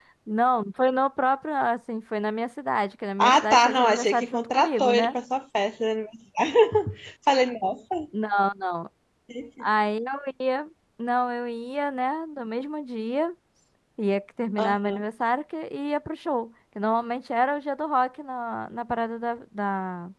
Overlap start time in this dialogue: 3.2 s

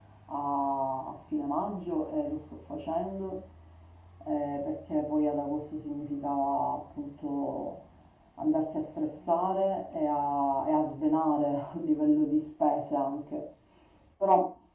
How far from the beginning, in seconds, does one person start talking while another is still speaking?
none

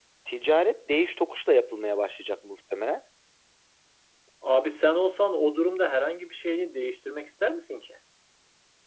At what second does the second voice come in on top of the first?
none

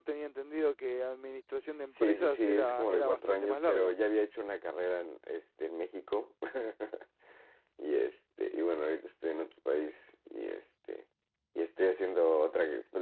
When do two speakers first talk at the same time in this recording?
2.0 s

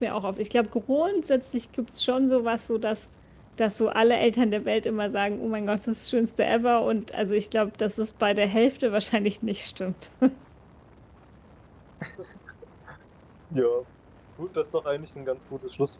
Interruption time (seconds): none

